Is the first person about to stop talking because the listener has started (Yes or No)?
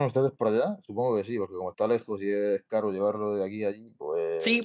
Yes